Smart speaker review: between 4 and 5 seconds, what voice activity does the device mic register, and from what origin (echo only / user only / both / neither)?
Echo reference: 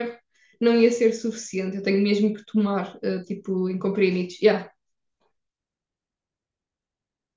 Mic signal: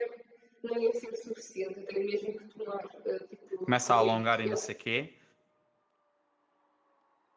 both